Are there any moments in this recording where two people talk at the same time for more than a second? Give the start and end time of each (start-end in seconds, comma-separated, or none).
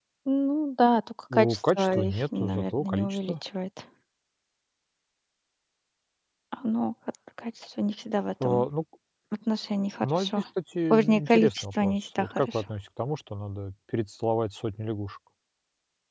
1.3-3.3, 10.9-12.6